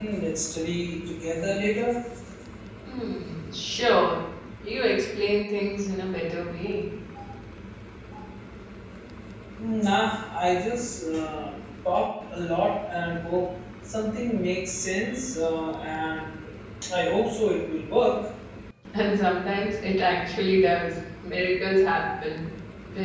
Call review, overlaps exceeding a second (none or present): none